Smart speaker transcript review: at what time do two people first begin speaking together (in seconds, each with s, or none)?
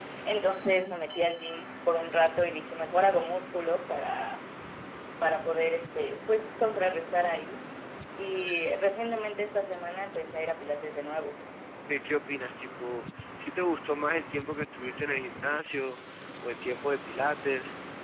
none